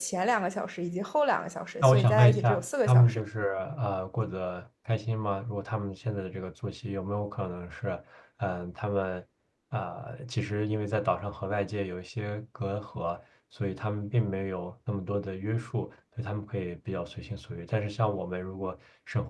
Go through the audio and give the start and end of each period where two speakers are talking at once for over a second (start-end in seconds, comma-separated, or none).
1.8-3.2